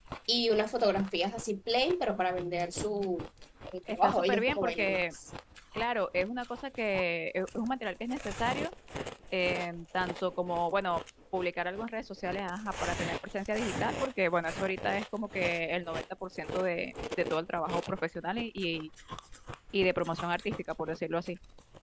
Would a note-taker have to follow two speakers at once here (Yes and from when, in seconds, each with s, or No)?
Yes, from 3.9 s